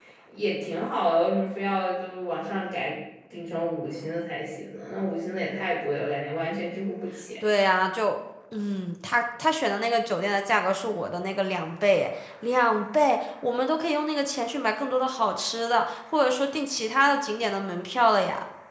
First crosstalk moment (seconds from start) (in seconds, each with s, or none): none